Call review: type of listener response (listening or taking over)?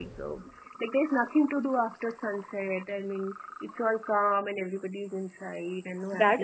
taking over